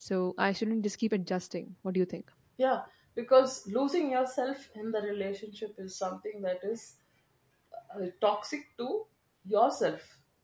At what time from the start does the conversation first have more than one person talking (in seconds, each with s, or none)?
none